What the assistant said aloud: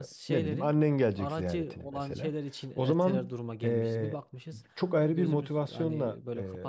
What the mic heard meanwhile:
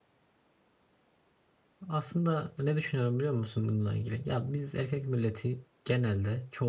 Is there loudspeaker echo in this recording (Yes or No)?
No